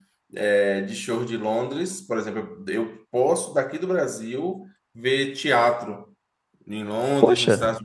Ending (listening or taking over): listening